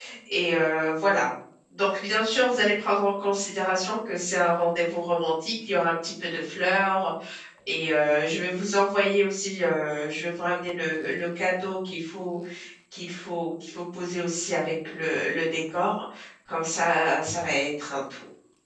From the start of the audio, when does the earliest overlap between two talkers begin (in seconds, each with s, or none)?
none